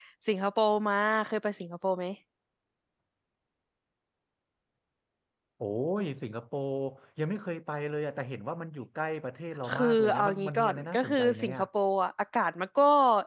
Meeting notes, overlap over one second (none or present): present